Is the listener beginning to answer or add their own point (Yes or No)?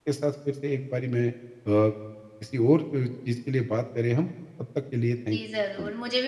Yes